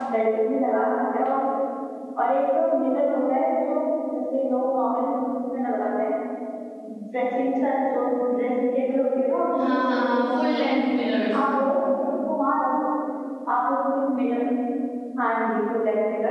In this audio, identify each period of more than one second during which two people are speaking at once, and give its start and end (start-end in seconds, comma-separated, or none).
9.6-10.8